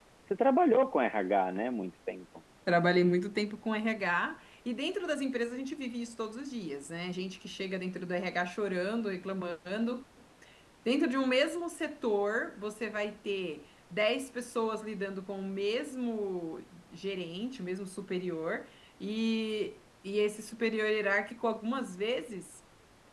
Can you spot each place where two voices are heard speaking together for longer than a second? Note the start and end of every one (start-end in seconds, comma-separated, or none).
none